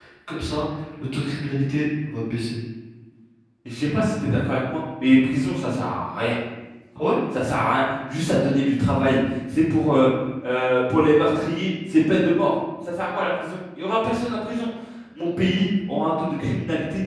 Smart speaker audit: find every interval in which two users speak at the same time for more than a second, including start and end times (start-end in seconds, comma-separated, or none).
none